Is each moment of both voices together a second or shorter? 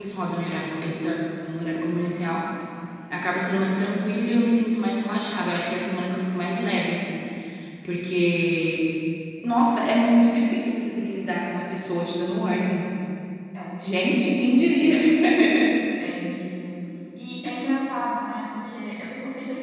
Yes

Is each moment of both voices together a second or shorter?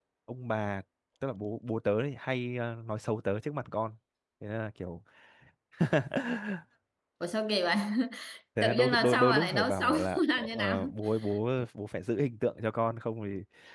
No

